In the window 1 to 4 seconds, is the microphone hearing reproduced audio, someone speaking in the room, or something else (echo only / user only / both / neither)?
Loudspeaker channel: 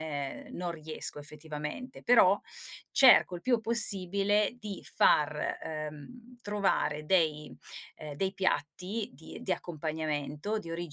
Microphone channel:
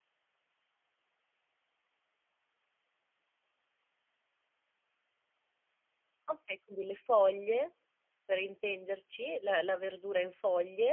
neither